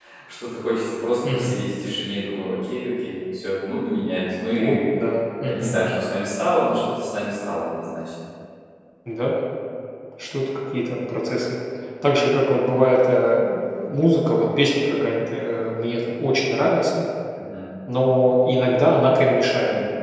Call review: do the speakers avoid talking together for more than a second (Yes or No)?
Yes